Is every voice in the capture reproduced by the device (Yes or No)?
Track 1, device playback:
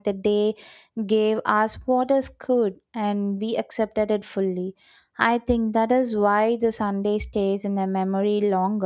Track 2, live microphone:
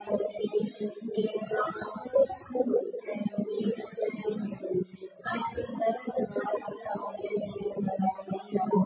Yes